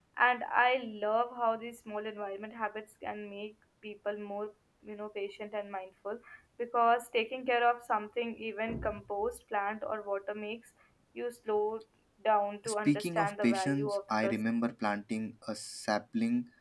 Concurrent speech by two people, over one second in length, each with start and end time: 12.7-14.4

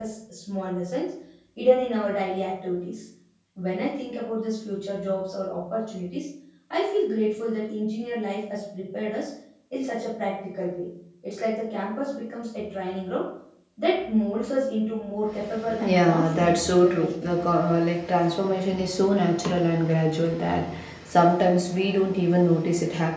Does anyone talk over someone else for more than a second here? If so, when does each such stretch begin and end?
15.8-17.4

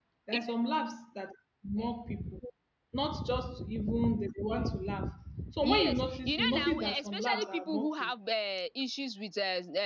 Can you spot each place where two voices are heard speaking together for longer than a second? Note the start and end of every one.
5.6-8.1

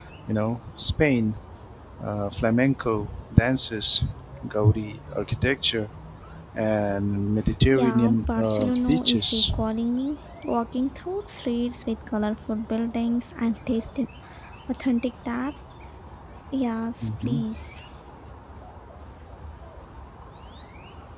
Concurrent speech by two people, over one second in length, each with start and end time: 7.7-9.4

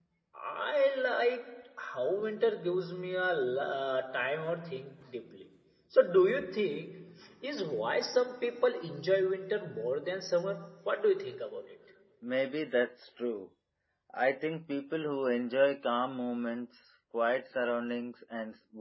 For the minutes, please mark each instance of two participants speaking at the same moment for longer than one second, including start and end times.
none

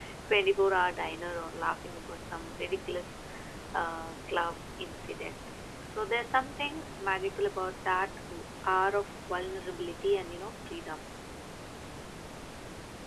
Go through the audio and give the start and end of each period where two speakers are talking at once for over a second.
none

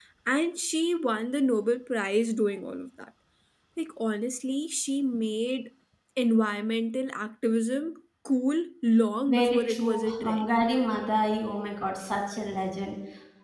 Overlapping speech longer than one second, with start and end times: 9.3-10.5

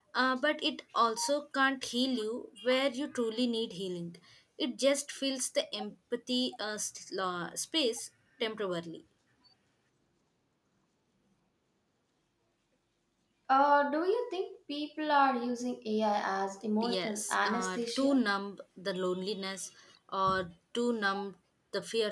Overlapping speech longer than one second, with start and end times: 16.9-18.2

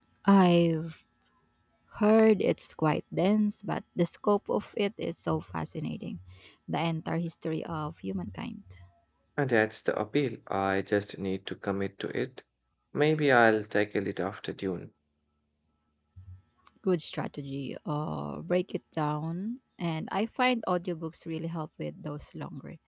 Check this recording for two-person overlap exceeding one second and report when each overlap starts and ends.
none

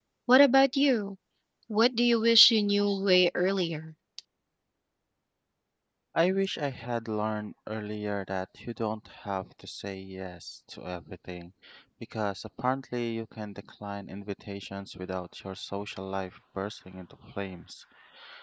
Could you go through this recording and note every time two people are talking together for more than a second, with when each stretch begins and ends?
none

